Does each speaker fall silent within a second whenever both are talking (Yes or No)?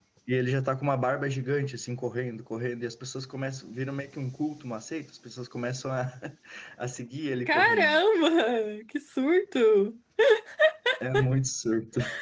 Yes